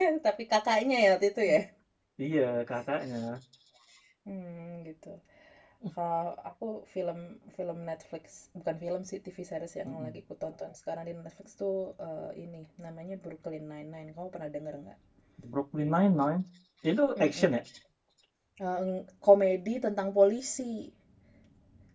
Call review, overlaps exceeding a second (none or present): none